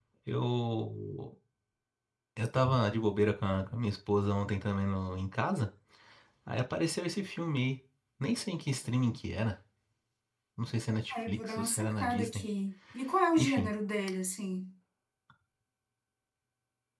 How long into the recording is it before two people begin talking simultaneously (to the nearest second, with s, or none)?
11 s